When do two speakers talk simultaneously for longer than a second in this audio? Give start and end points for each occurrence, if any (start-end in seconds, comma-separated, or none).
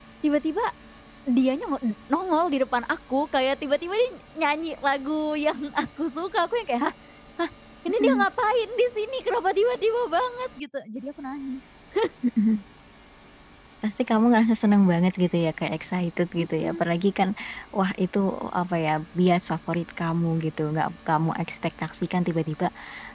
none